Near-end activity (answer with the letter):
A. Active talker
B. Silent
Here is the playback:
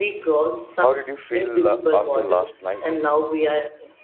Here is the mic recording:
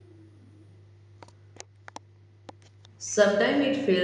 A